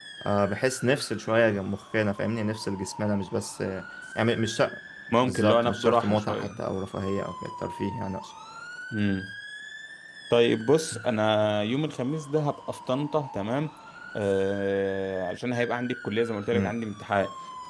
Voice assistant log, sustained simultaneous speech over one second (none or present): present